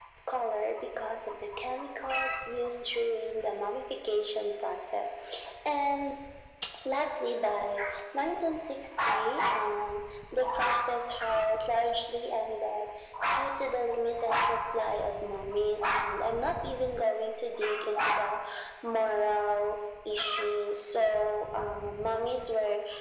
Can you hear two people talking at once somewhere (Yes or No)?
No